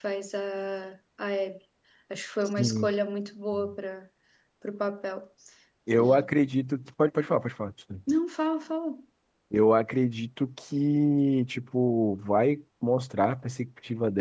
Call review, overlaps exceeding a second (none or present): none